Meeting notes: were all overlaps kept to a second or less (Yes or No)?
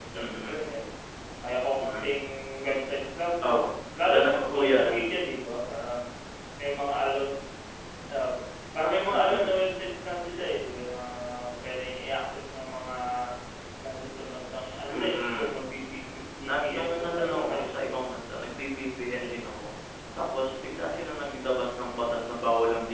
No